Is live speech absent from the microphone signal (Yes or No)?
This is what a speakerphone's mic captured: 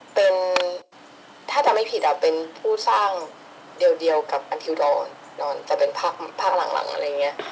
Yes